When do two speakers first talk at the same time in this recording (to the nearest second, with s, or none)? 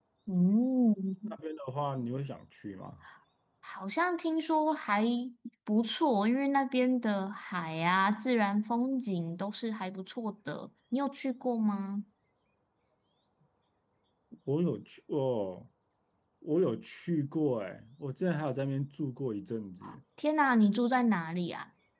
none